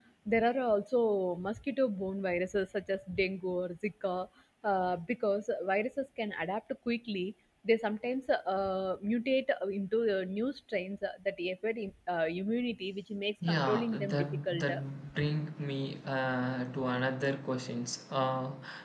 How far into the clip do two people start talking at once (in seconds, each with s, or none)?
13.4 s